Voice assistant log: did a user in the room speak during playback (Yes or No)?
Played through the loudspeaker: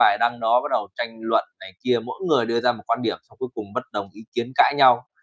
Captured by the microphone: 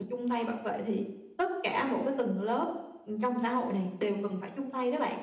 Yes